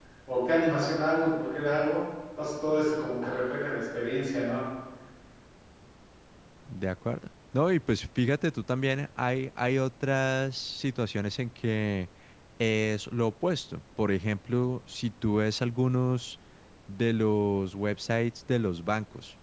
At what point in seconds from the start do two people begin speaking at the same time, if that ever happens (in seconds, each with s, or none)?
none